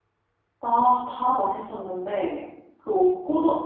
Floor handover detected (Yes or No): No